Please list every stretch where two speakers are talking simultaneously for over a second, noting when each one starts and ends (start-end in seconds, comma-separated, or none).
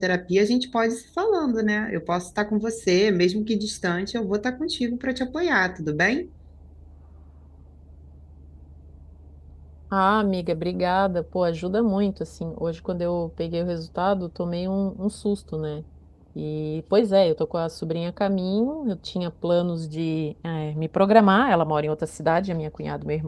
none